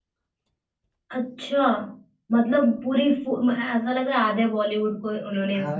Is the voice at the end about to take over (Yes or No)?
Yes